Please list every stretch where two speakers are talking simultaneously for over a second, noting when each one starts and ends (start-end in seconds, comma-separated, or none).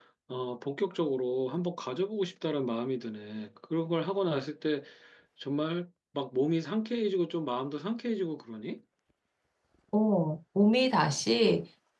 none